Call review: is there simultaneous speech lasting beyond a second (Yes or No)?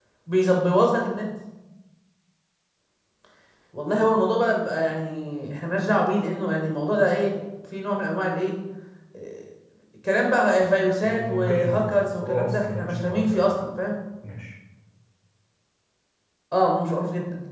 Yes